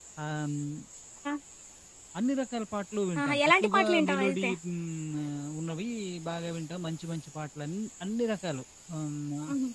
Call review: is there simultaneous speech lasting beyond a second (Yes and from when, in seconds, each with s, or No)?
Yes, from 3.2 s